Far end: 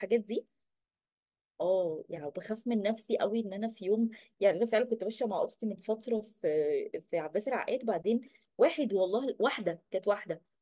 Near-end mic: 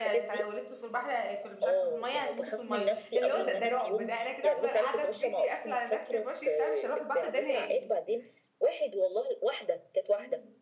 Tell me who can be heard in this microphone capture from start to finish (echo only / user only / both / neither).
both